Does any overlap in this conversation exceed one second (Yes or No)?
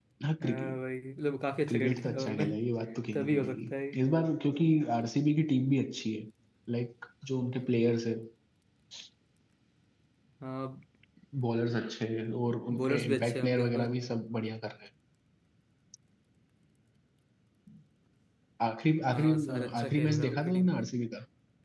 Yes